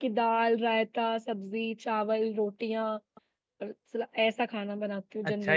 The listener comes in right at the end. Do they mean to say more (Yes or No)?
Yes